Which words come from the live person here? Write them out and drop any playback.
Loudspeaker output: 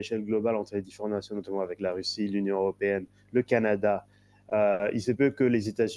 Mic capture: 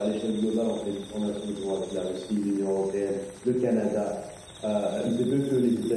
none

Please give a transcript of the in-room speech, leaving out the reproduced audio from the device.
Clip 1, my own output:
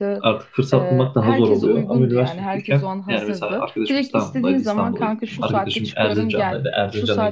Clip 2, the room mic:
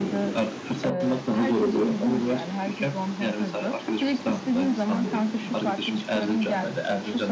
none

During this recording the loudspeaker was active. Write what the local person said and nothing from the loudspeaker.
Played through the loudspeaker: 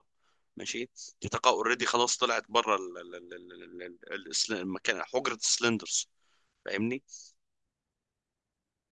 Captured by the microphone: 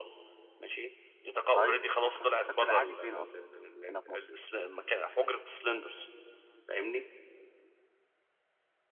طيب فكك- السد العالي فين اصلا هنا في مصر

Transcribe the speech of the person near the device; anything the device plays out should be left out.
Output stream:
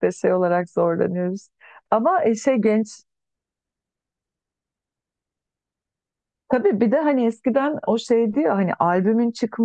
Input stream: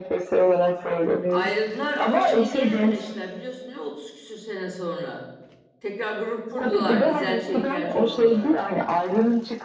Ayrıldılar ama şimdi gene birleştiler biliyorsun değil mi 30 küsür sene sonra. Tekrar grup kurdular İzel Çelik Ercan olarak.

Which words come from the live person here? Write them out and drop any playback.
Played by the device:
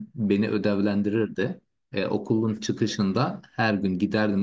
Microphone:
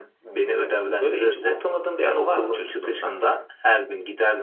Evet. Böyle hiç unutamadığın bir anı var mı çocukluğundan?

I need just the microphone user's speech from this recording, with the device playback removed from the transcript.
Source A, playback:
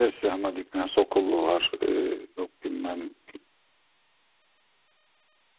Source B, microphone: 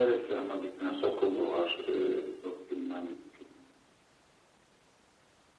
none

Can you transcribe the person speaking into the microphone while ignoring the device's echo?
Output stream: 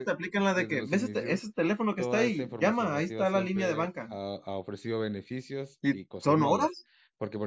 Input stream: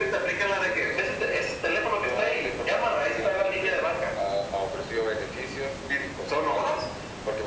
none

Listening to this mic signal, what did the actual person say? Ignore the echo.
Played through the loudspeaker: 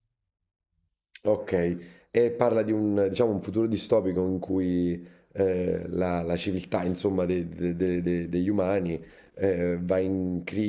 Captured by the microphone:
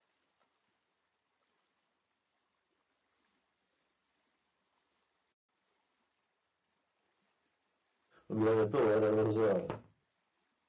col mitragliatore, non lo so.

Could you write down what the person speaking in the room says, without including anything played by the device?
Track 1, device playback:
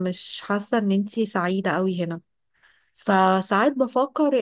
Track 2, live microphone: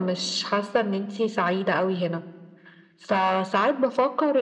none

